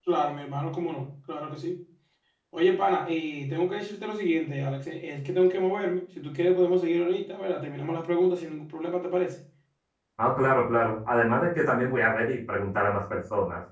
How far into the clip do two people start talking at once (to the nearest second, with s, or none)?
none